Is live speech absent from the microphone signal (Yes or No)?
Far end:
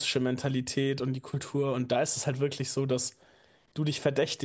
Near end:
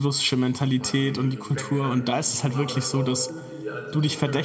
No